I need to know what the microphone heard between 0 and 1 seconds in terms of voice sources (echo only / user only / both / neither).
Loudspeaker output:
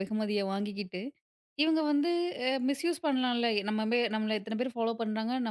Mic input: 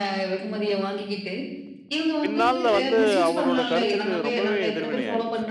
echo only